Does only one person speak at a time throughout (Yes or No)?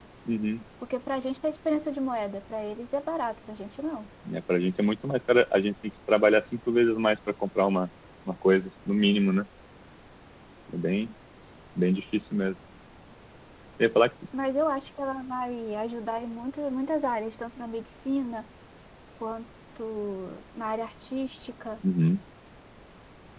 Yes